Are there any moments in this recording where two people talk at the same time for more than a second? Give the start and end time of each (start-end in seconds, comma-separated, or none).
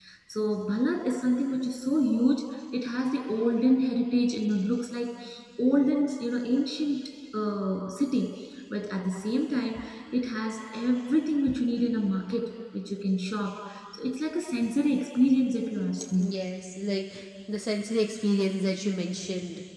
none